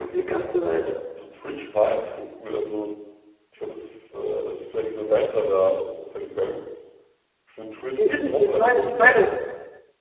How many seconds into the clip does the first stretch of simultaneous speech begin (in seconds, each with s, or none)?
8.0 s